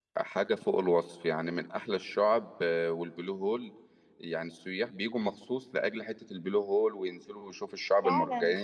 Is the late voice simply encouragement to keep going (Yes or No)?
Yes